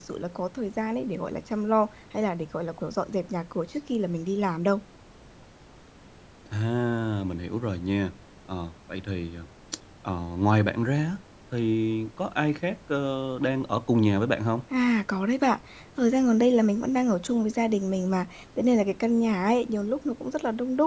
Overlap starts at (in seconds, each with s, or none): none